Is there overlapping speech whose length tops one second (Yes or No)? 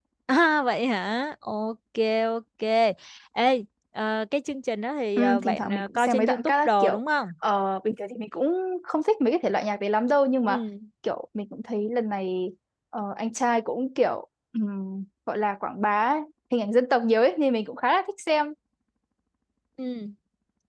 Yes